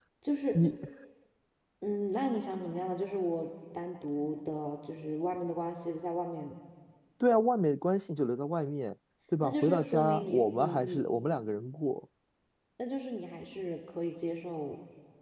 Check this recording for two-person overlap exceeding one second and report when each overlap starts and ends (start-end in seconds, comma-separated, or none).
9.4-11.0